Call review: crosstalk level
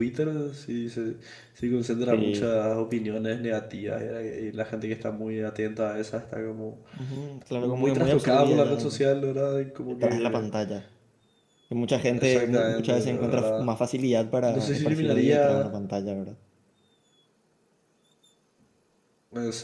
present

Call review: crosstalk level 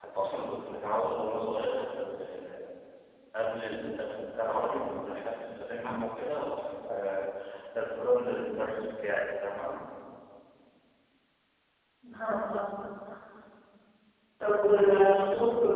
none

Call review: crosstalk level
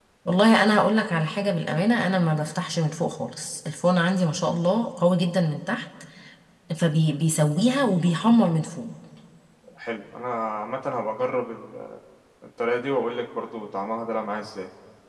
none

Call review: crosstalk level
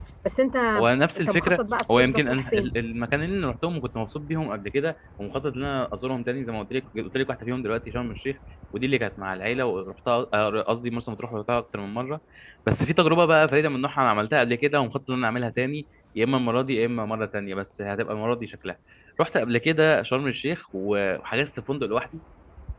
present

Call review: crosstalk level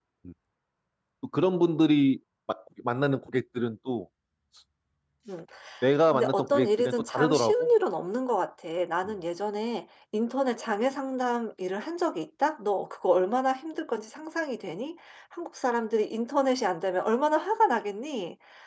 present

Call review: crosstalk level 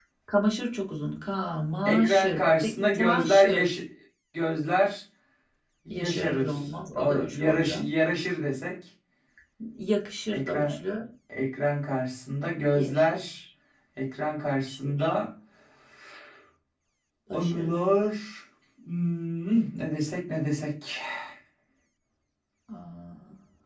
present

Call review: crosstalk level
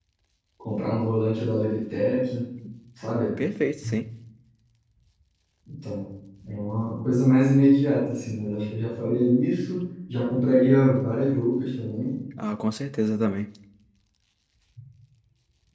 none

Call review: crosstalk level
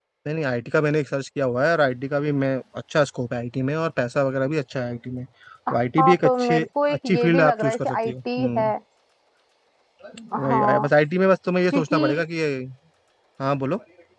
present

